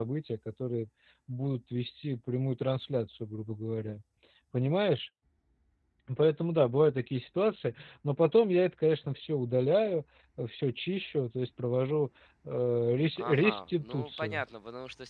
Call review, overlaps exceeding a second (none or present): present